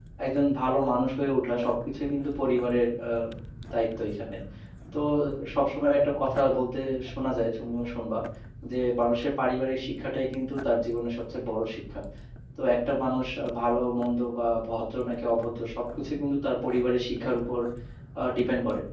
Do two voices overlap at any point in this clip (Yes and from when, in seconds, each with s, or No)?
No